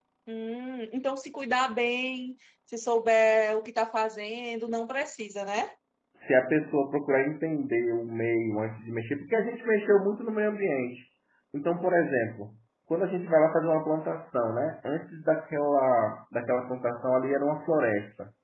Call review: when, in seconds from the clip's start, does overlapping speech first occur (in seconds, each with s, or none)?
none